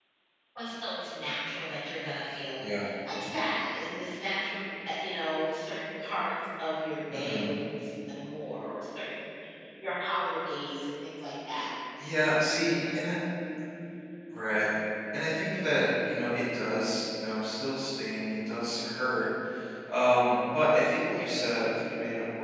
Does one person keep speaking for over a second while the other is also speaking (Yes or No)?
No